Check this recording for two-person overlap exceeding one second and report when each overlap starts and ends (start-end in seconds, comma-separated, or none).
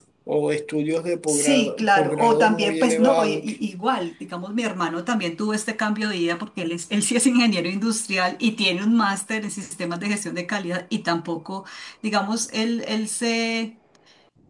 1.3-3.4